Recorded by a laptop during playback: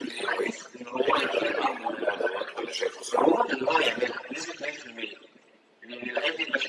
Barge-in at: none

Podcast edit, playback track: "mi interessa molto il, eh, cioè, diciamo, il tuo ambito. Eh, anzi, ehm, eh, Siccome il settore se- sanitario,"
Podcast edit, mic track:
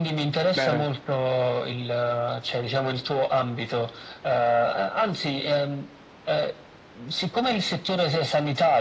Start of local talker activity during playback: 0.5 s

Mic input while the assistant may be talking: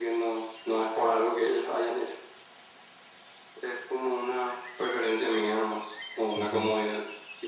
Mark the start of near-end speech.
6.3 s

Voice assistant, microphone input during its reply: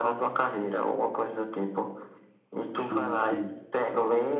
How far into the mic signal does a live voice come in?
2.7 s

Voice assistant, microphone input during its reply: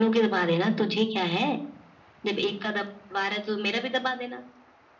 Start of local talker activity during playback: none

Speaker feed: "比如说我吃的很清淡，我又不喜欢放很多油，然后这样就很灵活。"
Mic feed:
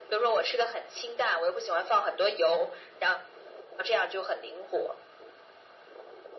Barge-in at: none

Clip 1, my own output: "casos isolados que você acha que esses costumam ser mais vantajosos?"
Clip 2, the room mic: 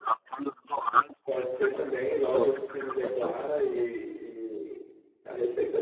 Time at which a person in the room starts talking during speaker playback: 1.2 s

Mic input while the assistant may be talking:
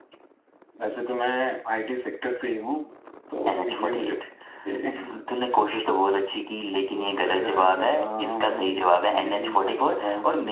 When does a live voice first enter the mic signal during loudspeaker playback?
none

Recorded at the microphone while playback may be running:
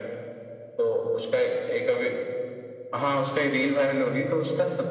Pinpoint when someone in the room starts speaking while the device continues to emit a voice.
none

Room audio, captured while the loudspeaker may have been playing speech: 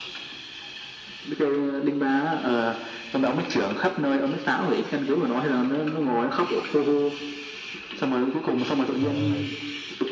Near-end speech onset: 9.0 s

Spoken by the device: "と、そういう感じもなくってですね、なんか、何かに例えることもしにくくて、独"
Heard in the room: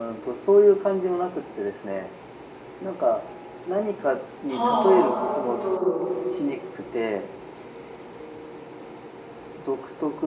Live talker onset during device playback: 4.5 s

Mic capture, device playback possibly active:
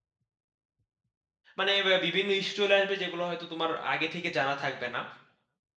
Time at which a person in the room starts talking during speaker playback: 1.6 s

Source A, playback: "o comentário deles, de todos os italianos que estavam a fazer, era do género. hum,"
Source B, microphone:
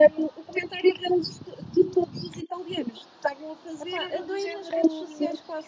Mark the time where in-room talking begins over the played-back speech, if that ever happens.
3.8 s

